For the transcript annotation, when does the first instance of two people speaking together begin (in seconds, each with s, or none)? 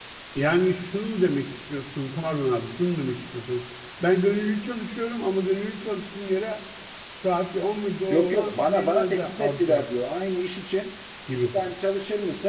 8.1 s